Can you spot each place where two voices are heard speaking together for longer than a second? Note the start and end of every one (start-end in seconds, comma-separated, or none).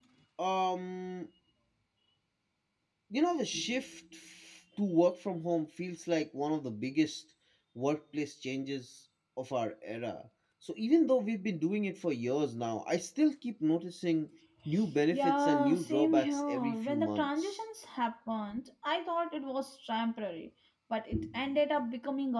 15.1-17.6